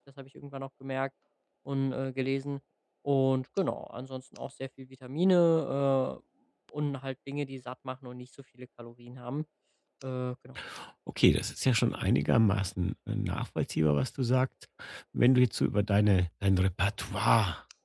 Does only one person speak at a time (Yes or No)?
Yes